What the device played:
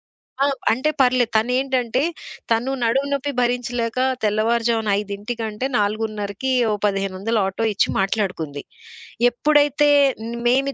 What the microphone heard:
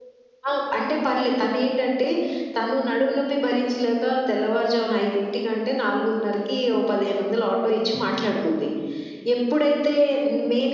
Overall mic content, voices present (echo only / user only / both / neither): echo only